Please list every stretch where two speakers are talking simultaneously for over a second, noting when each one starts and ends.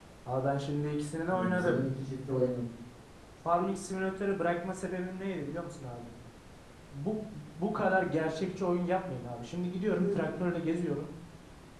none

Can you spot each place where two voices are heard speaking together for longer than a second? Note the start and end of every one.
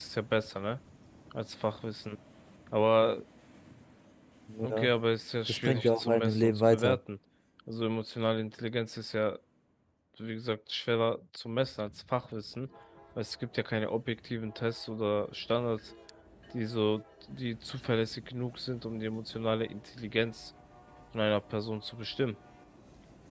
5.5-7.0

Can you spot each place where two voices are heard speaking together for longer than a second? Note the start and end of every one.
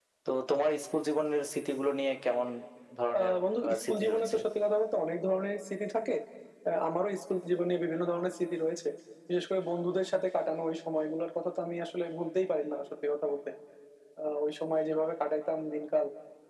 3.2-4.4

